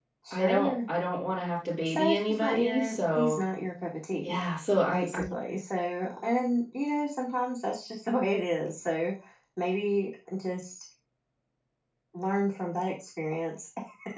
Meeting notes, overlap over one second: present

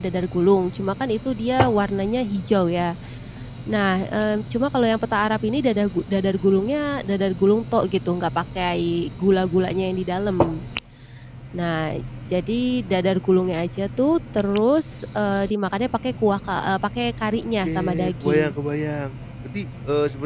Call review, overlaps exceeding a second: present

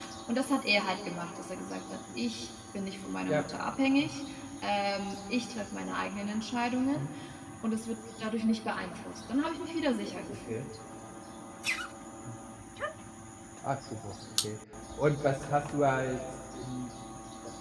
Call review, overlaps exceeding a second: none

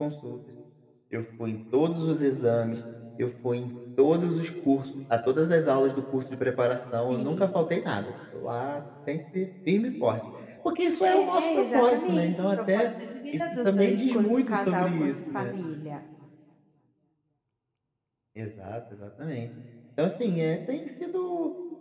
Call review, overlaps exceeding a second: present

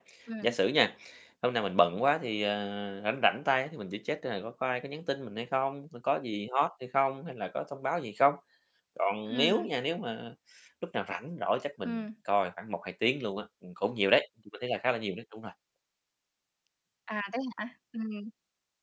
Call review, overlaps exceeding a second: none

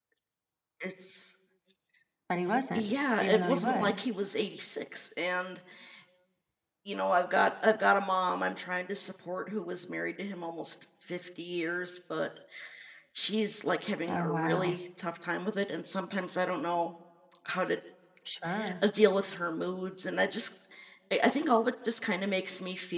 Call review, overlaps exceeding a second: present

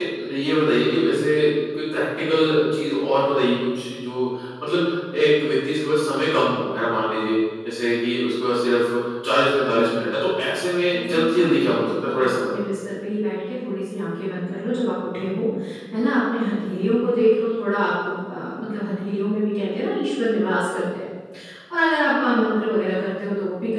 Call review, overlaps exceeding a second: present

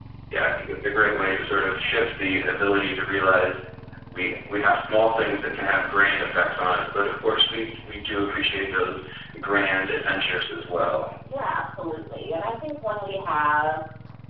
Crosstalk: none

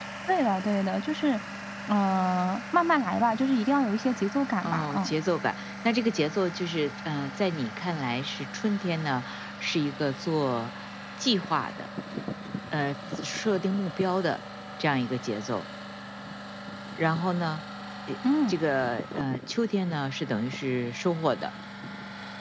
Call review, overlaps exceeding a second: none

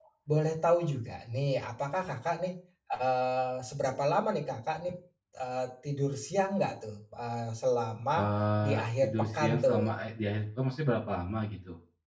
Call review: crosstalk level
present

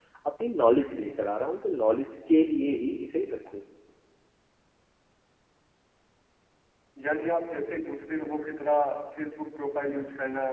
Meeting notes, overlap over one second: none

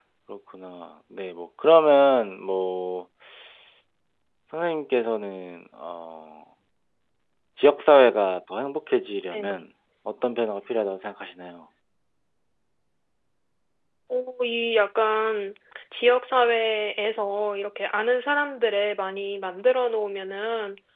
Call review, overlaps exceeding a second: none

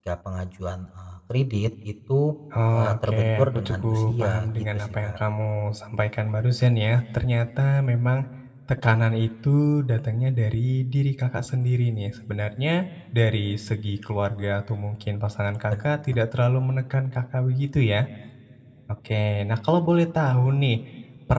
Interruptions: present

